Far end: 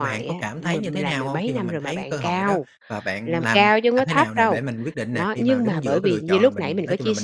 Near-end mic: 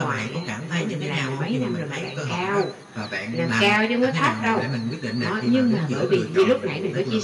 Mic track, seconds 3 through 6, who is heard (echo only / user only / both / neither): echo only